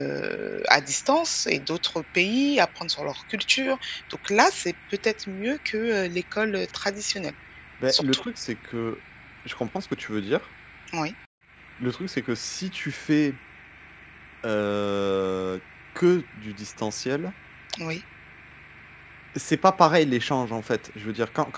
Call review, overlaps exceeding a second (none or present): none